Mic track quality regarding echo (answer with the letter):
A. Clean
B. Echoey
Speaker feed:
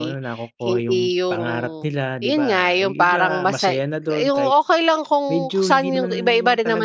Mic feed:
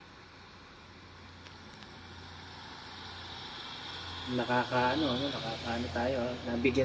A